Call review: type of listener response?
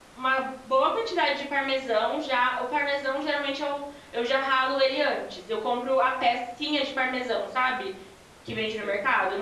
listening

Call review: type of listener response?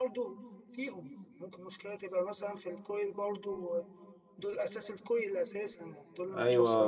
taking over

